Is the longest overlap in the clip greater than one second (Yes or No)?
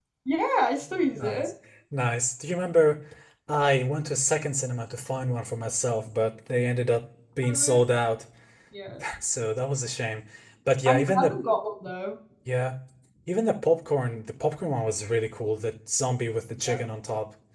No